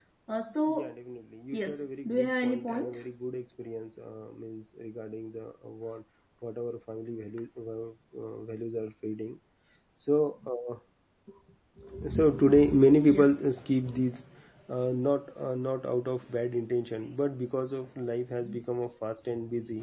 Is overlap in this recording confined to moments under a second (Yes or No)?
No